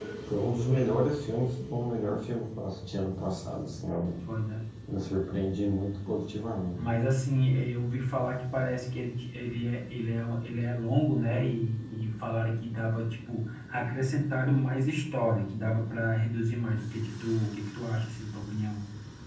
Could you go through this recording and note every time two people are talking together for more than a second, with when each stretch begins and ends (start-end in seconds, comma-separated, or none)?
none